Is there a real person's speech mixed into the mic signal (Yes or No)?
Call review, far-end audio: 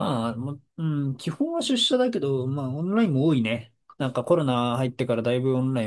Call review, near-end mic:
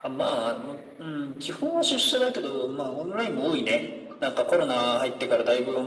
No